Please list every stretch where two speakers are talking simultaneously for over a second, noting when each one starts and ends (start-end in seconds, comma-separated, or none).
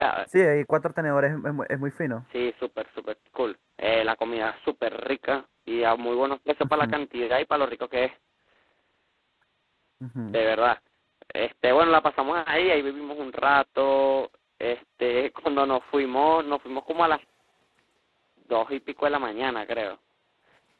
none